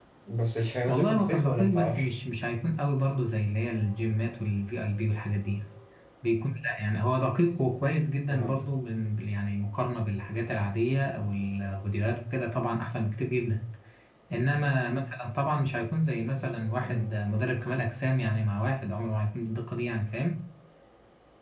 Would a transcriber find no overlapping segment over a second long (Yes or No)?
No